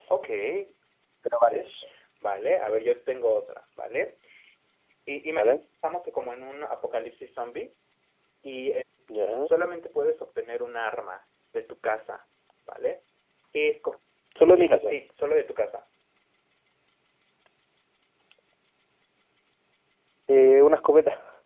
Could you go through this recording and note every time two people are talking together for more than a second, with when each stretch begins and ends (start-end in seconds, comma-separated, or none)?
none